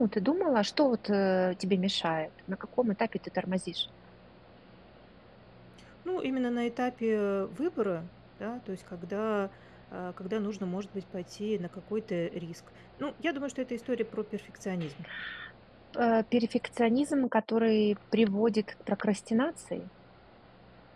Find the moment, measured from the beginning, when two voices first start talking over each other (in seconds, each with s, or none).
none